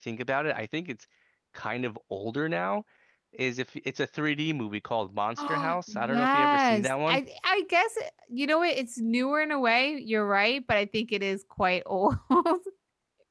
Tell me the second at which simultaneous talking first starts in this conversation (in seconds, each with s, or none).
5.4 s